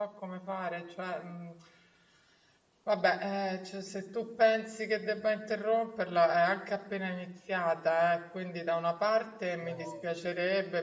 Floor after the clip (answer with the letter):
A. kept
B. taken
A